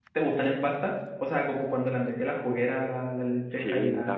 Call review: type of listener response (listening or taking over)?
taking over